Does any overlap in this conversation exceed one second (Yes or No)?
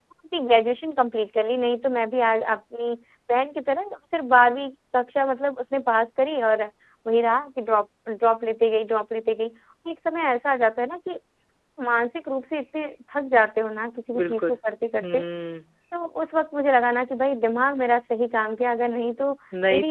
No